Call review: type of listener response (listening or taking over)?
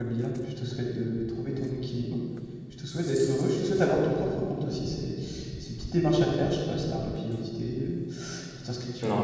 listening